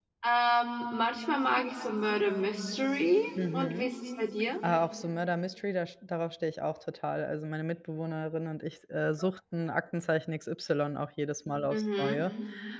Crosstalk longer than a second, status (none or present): none